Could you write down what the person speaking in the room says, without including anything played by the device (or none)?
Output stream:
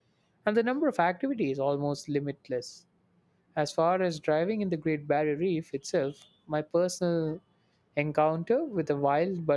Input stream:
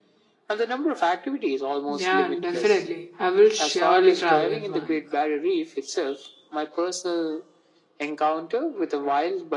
yeah definitely i will surely travel at once